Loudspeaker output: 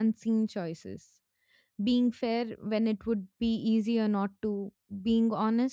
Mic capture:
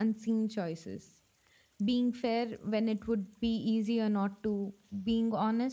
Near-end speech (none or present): none